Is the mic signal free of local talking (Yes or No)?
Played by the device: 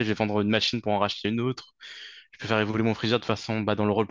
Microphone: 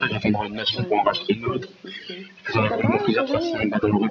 No